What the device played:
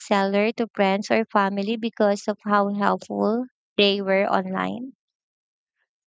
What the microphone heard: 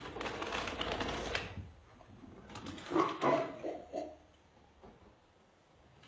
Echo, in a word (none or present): none